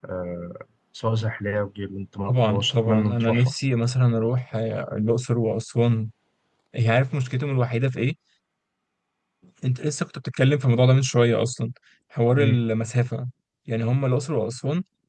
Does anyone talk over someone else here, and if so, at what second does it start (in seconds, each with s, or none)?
2.3 s